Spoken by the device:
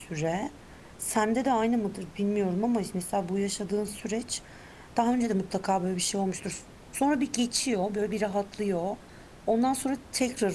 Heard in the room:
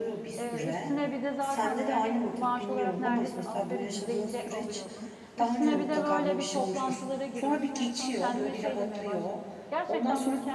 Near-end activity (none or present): present